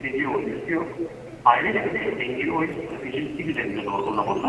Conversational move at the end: taking over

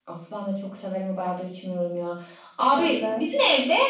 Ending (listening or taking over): listening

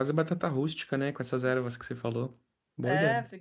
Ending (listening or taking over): taking over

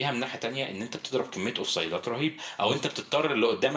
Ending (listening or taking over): listening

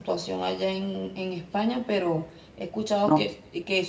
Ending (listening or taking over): listening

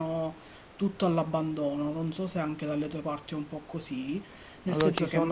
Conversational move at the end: taking over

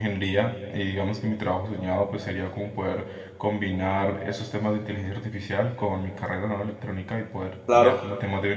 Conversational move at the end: listening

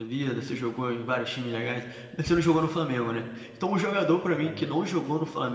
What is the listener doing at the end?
listening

